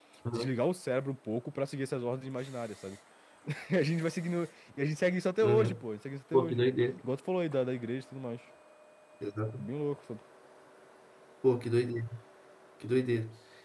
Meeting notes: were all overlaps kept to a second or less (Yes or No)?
Yes